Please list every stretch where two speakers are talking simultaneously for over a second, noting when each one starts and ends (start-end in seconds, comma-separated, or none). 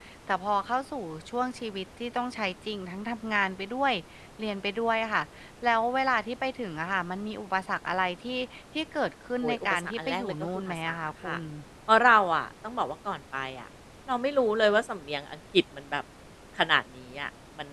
9.4-11.4